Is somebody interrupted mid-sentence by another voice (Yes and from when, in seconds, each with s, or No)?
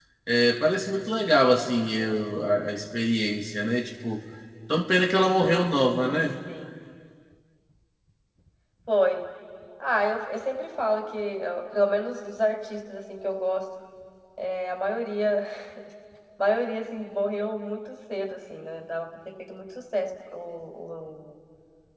No